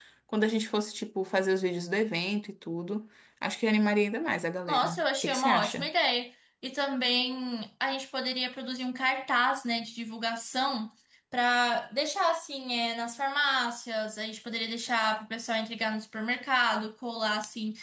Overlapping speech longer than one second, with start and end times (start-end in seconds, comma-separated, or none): 4.7-5.9